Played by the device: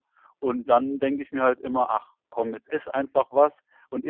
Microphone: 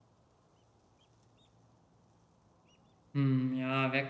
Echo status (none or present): none